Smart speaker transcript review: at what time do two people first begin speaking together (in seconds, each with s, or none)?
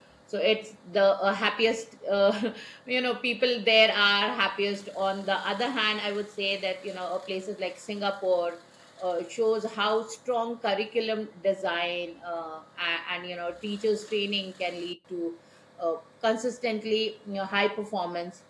none